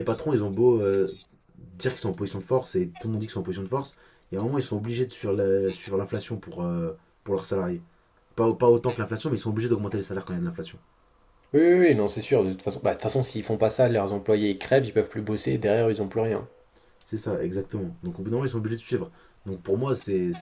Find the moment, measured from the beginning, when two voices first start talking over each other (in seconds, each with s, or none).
none